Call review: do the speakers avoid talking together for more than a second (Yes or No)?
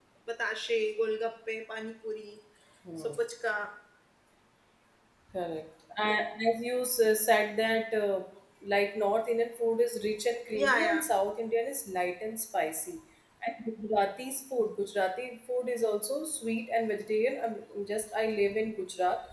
Yes